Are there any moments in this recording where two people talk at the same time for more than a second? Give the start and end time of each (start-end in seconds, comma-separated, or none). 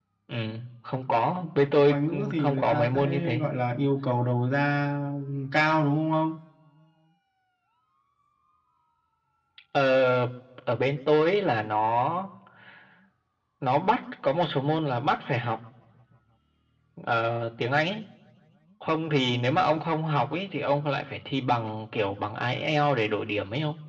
1.8-3.4